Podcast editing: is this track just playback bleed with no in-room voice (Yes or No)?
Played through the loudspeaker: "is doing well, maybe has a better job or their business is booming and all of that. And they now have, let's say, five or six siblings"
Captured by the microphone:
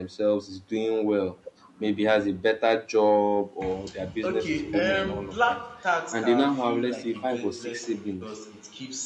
No